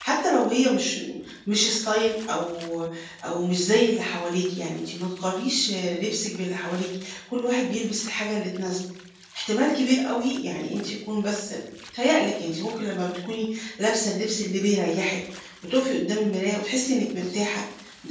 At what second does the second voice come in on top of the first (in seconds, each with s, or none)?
none